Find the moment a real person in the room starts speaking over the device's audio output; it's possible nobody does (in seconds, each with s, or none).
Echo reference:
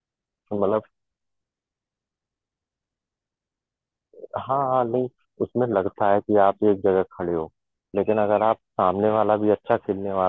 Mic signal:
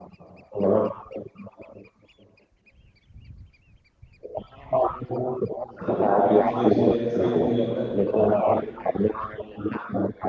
5.7 s